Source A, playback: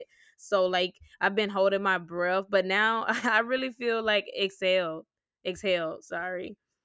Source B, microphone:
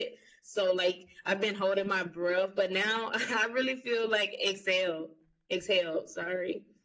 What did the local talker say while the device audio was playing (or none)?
none